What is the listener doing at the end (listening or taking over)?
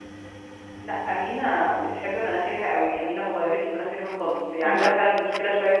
listening